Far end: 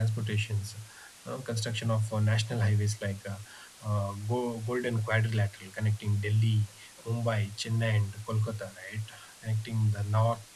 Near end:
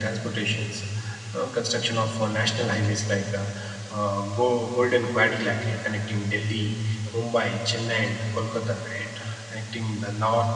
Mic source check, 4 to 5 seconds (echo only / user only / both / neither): echo only